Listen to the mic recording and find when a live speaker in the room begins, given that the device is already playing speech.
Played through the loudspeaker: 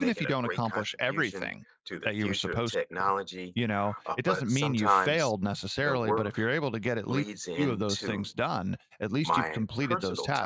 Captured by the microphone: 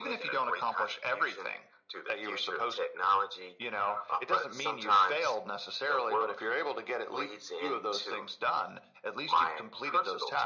none

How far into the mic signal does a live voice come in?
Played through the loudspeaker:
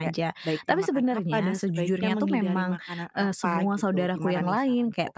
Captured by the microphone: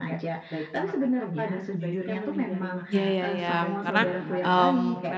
2.9 s

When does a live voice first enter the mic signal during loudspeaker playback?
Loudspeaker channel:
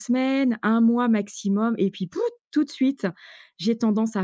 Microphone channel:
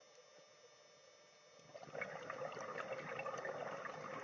none

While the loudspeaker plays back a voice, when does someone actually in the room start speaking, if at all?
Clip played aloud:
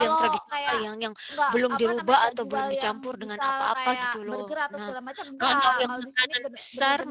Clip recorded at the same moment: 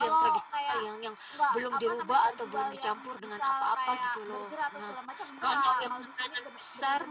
none

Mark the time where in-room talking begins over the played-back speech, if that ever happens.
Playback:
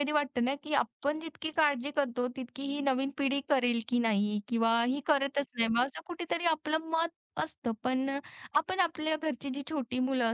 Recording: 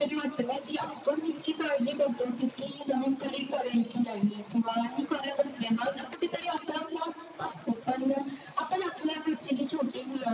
none

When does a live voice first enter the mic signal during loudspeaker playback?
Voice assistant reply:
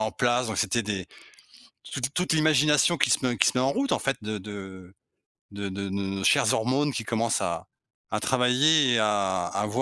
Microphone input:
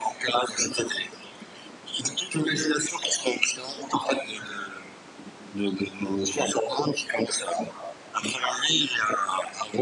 none

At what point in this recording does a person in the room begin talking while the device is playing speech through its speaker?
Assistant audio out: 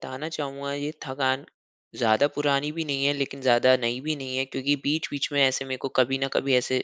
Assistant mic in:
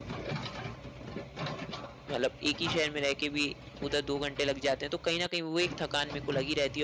2.1 s

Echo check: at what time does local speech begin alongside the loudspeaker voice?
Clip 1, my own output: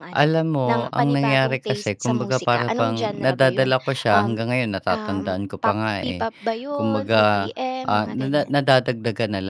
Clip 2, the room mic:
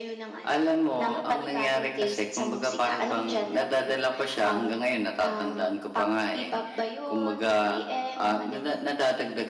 none

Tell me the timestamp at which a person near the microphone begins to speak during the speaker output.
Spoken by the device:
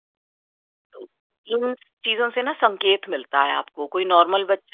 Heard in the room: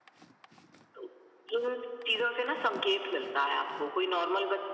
none

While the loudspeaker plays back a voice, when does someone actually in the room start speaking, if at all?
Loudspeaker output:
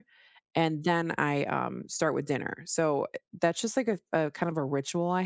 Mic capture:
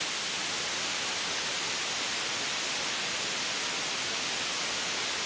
none

